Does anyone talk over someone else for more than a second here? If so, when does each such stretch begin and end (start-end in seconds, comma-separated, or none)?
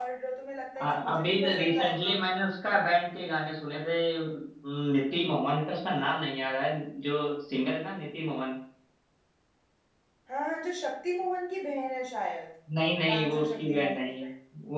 0.8-2.2, 13.0-14.2